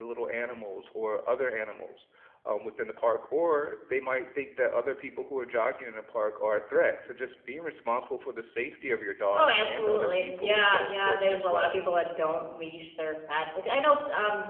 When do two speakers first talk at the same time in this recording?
9.3 s

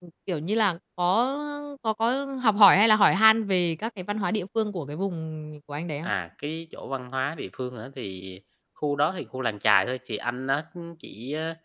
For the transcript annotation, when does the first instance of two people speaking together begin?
none

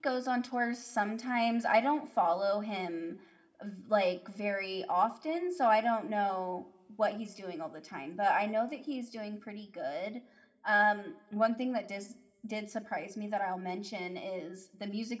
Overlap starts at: none

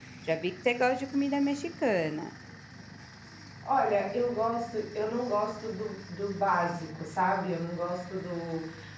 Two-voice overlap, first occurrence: none

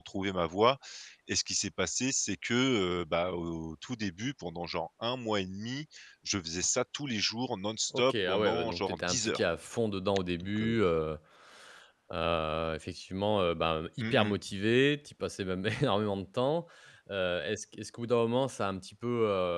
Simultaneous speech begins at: 7.9 s

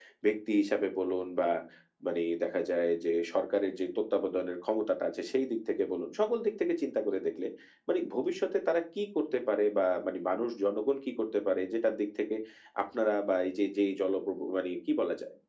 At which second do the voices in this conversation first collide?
none

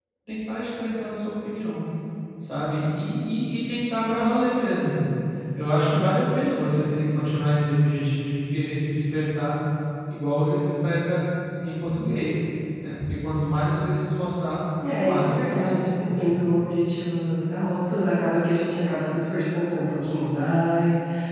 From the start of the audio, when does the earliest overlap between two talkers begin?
15.0 s

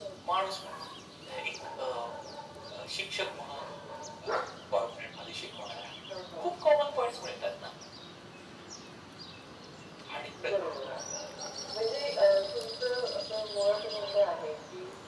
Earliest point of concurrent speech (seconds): none

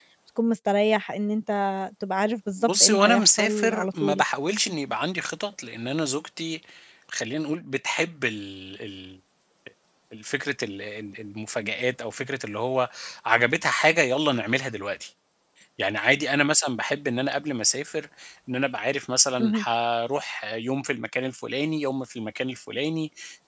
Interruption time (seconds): 2.6 s

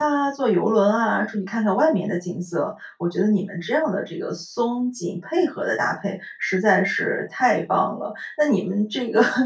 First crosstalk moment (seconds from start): none

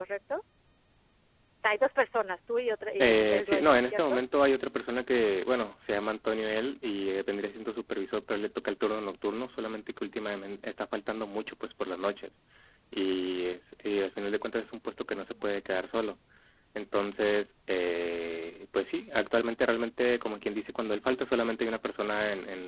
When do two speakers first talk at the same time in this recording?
3.0 s

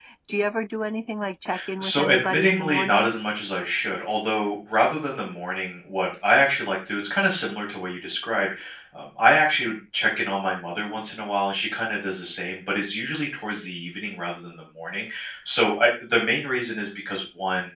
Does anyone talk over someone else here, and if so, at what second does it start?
1.8 s

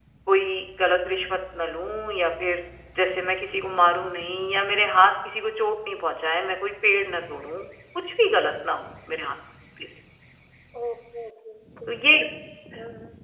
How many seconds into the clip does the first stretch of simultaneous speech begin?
none

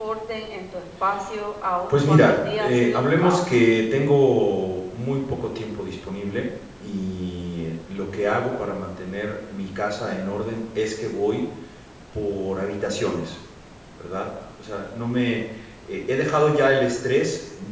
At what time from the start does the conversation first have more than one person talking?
1.9 s

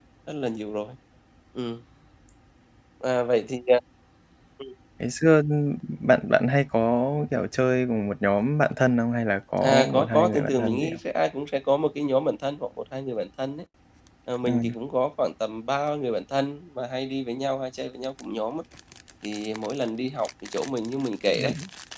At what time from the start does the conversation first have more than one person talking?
9.6 s

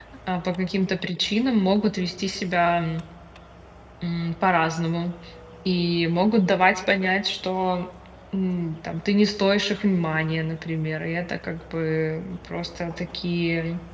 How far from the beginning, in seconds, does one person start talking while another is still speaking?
none

